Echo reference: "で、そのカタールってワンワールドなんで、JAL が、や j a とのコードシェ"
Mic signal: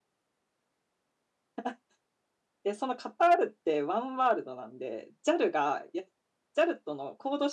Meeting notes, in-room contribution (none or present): none